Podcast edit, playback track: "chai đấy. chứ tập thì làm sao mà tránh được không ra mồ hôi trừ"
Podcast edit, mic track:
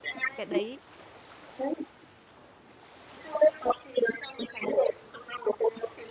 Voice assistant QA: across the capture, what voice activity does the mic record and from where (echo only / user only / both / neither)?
both